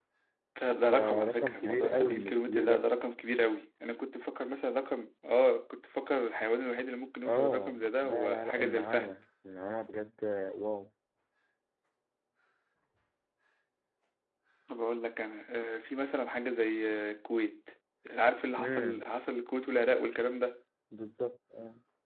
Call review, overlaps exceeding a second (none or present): present